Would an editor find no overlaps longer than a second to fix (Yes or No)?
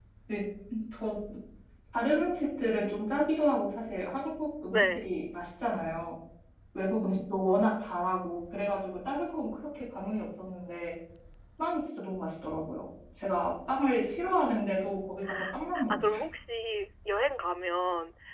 Yes